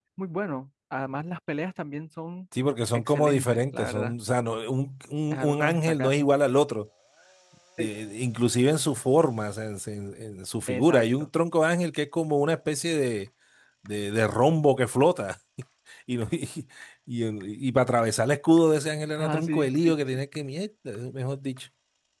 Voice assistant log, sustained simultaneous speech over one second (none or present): present